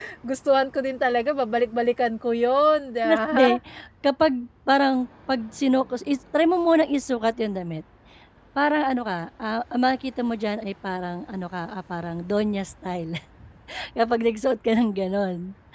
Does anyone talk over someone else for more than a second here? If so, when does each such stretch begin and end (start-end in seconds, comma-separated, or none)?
none